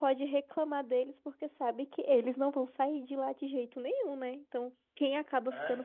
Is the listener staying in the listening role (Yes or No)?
Yes